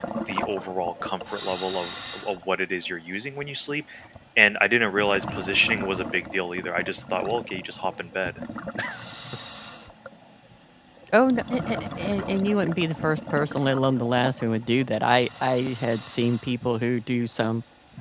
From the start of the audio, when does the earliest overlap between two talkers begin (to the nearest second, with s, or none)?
none